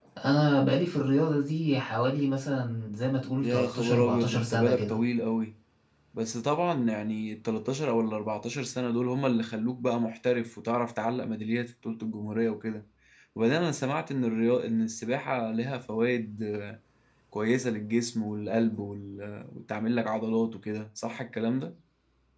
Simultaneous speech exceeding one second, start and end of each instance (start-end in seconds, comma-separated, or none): 3.4-5.0